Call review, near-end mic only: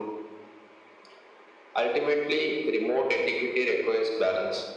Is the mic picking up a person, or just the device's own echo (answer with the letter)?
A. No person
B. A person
A